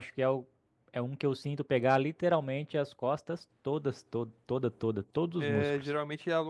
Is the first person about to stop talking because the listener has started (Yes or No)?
Yes